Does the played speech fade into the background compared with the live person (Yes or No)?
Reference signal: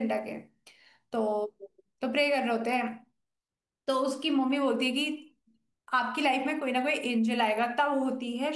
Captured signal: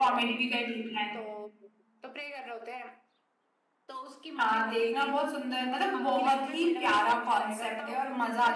Yes